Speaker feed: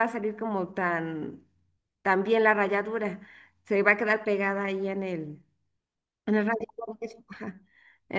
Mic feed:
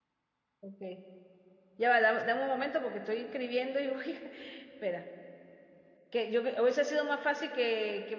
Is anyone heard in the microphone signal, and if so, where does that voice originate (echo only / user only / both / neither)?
user only